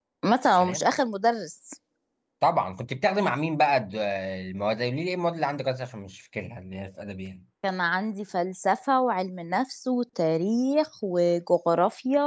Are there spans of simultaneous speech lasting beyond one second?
No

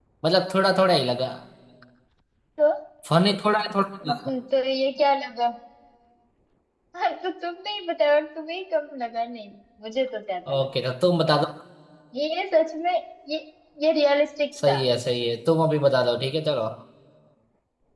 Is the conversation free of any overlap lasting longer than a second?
Yes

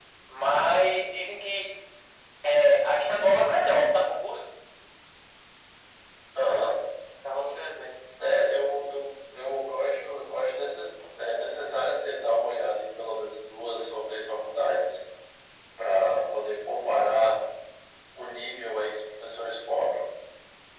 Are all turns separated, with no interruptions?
Yes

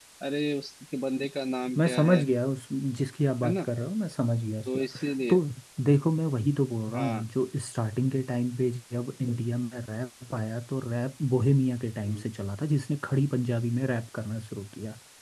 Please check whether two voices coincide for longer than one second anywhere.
No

